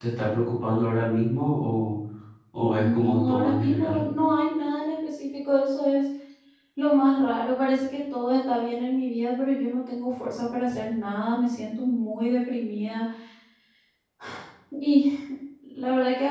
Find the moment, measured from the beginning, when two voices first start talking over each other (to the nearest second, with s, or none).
3 s